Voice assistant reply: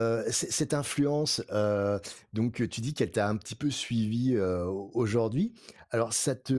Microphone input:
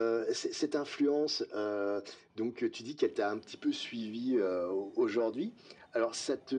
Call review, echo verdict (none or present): present